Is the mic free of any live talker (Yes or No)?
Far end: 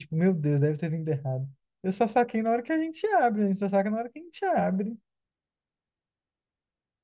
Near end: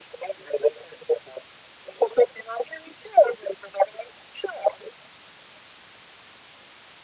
Yes